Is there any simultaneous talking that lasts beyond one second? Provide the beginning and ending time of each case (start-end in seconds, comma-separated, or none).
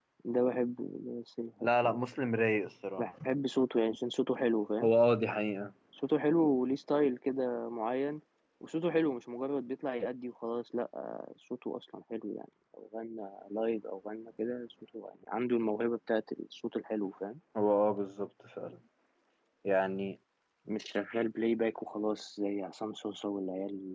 none